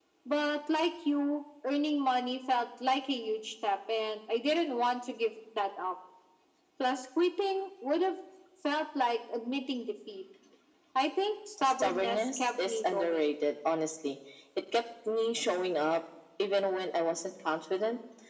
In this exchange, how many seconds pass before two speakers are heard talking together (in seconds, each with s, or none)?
11.6 s